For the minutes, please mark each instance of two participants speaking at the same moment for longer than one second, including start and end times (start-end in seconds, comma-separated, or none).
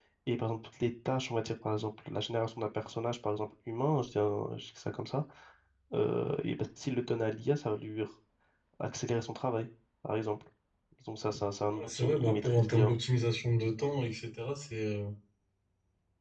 11.7-12.9